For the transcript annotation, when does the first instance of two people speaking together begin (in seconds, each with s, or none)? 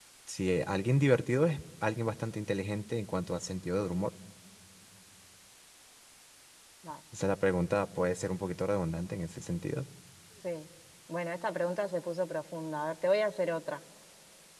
none